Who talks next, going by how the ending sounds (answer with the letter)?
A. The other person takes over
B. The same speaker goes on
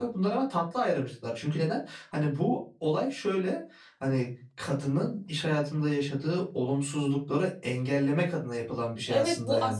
A